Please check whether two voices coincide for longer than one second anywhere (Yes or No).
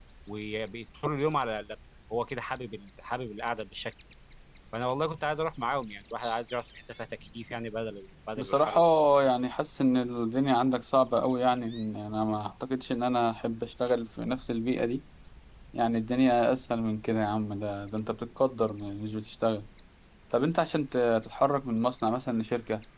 No